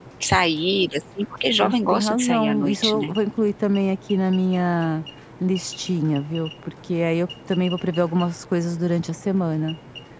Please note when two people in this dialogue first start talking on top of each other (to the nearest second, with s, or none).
2 s